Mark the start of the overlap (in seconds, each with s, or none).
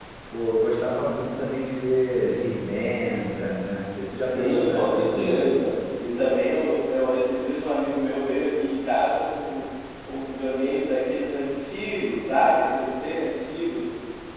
4.2 s